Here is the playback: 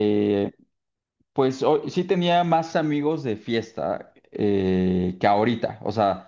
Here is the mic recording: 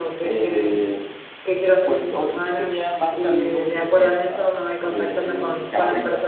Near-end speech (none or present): present